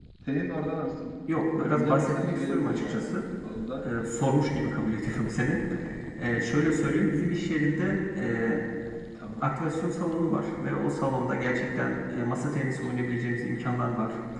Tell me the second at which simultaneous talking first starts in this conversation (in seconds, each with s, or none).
1.7 s